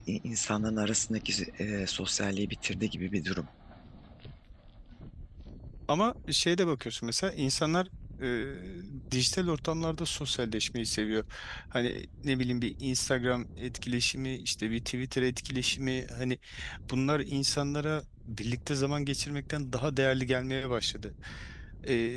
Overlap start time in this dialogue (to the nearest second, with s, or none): none